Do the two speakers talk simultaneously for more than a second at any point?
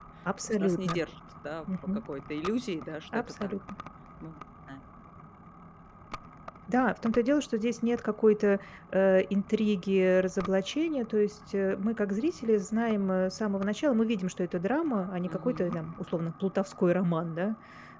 No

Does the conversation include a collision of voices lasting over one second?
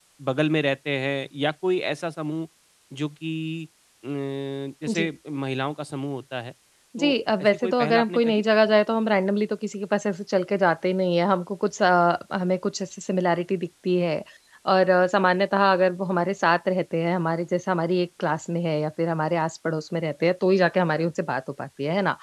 Yes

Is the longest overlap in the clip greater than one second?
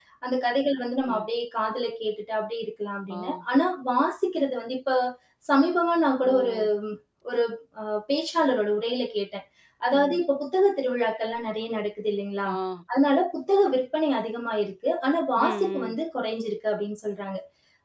No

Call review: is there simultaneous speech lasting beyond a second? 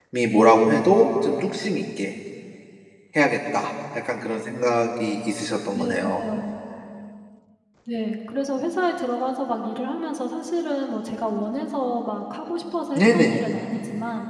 No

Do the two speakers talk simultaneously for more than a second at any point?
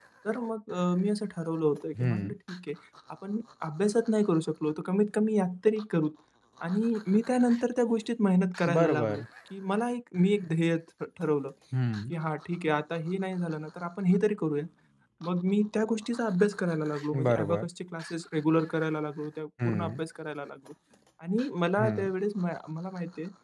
No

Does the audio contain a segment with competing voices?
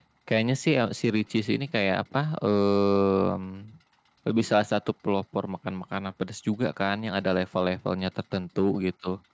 No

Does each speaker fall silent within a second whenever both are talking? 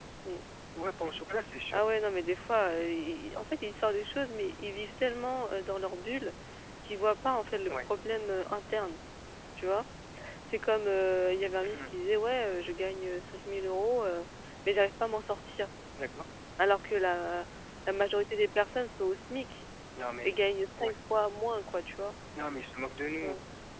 Yes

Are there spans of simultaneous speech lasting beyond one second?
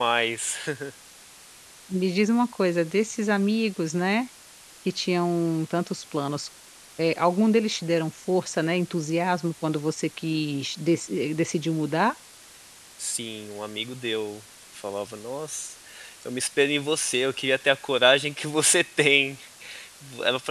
No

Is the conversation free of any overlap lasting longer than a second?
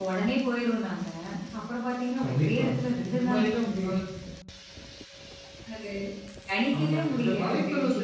No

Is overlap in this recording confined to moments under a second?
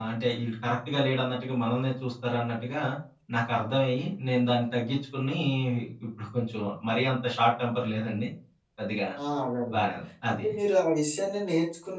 Yes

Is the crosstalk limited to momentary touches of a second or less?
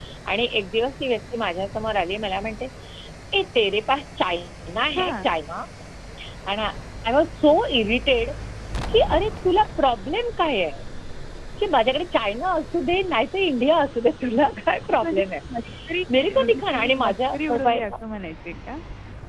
No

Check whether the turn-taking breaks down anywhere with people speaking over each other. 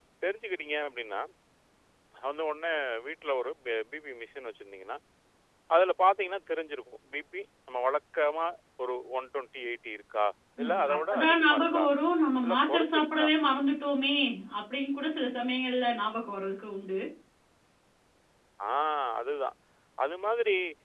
Yes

